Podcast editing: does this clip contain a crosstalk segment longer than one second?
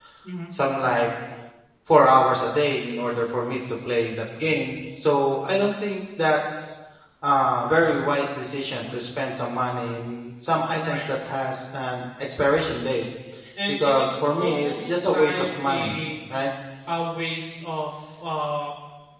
Yes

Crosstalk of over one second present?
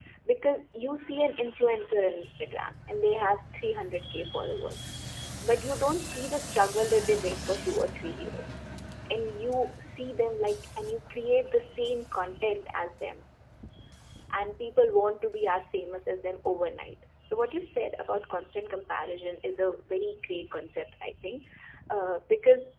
No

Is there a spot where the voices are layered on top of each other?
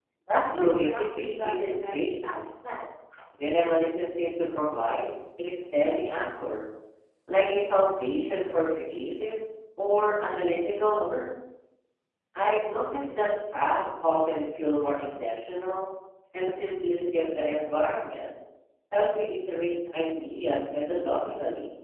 Yes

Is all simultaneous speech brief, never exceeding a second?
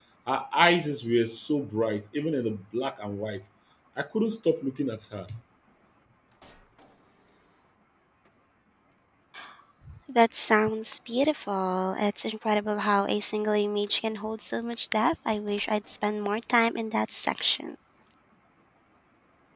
Yes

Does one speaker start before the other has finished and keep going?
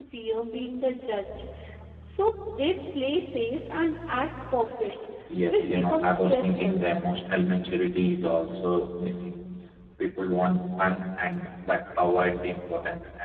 Yes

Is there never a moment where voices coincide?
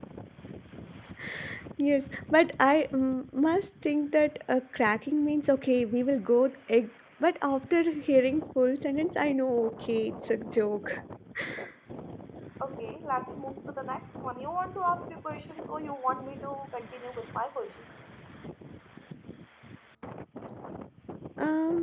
Yes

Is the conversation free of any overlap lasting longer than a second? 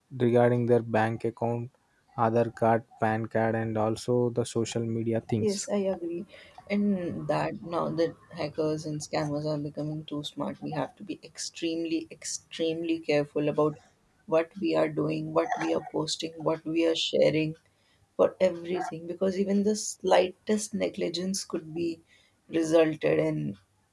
Yes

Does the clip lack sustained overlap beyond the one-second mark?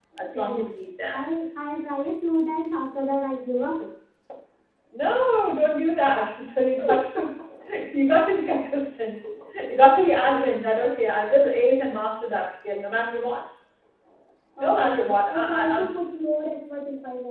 No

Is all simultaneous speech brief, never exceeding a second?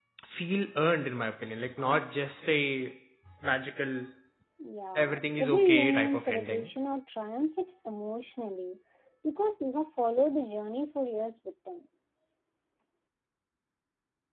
No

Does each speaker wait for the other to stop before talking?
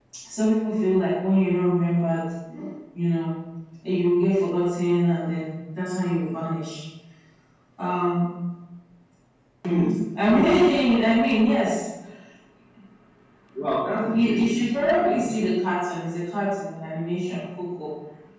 No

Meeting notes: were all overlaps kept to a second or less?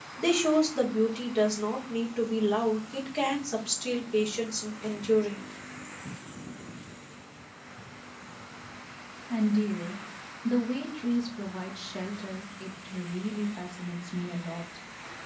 Yes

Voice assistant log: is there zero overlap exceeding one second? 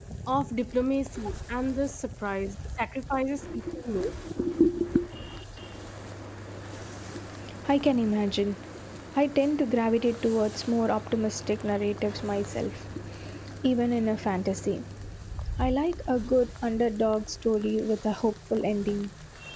Yes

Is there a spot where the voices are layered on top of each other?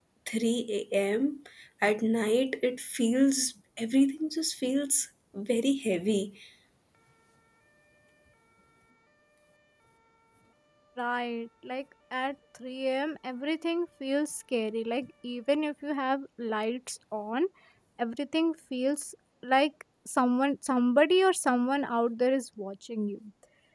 No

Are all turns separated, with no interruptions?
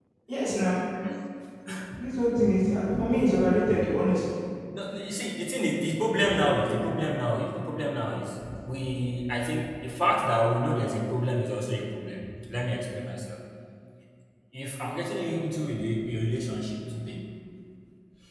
Yes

